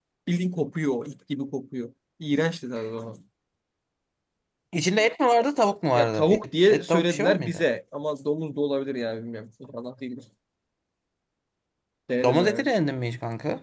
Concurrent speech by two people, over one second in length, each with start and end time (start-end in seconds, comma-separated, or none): 5.9-7.6